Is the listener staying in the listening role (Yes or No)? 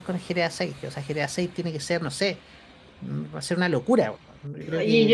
No